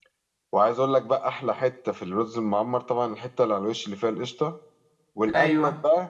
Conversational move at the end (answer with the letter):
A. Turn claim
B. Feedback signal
B